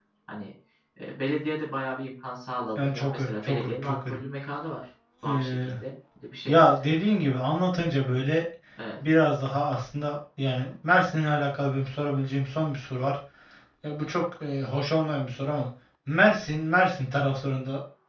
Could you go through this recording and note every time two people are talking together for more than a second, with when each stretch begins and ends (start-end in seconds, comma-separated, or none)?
2.8-4.2